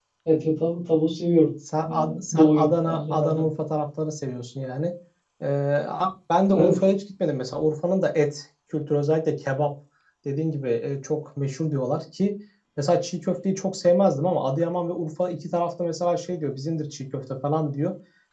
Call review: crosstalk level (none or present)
present